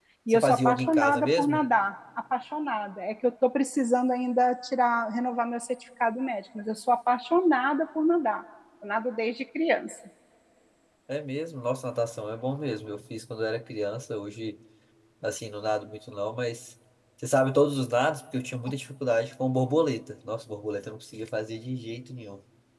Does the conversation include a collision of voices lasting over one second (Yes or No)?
Yes